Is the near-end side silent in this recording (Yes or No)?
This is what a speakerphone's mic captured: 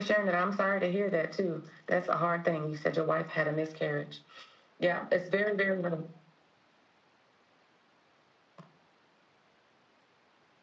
Yes